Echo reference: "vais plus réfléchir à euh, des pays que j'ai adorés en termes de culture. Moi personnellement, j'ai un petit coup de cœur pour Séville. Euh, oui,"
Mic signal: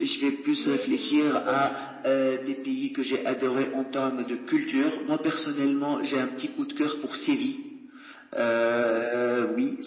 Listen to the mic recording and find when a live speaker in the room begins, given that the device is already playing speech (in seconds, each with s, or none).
0.6 s